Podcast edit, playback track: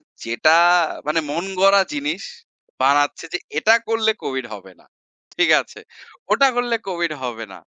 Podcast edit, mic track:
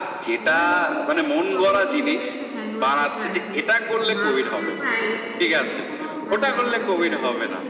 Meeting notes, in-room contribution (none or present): present